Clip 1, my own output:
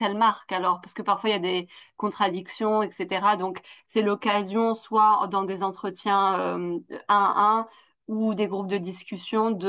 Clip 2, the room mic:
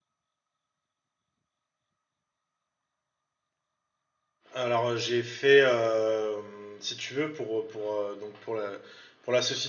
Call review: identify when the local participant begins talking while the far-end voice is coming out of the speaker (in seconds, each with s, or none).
4.5 s